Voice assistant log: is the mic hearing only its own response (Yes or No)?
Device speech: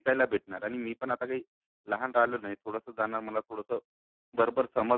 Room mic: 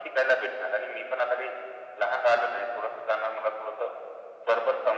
Yes